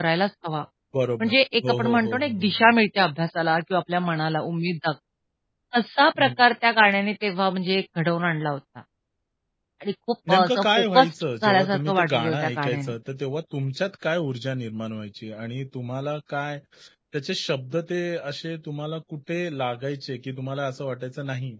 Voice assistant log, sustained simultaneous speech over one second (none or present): present